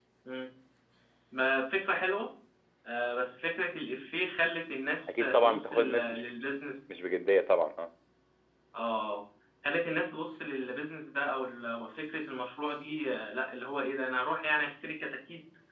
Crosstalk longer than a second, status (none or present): present